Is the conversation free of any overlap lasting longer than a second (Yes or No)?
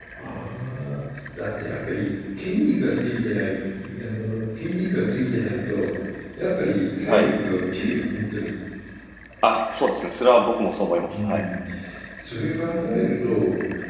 Yes